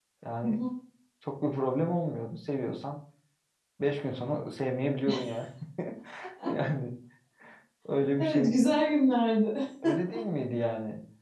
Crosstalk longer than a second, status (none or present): none